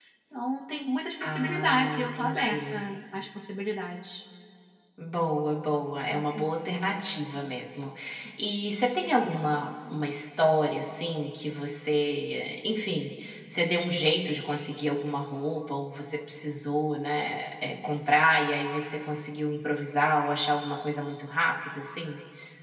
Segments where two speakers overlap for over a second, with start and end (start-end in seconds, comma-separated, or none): 1.2-2.8